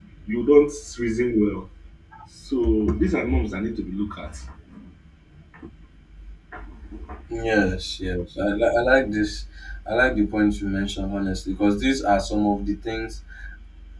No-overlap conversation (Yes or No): Yes